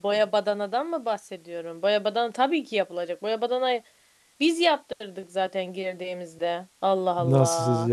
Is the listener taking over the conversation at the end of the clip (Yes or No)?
Yes